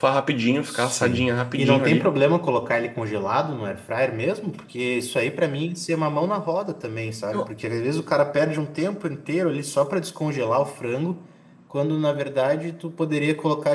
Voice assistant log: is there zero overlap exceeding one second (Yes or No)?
No